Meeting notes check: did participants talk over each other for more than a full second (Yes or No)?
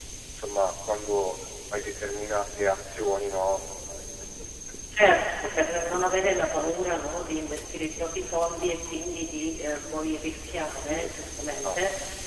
No